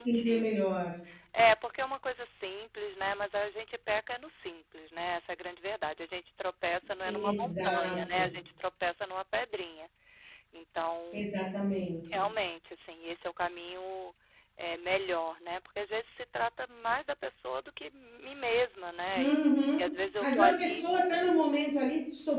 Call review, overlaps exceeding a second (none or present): present